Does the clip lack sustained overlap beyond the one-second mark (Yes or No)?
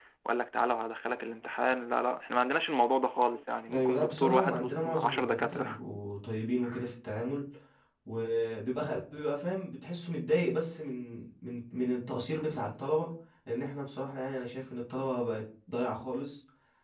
No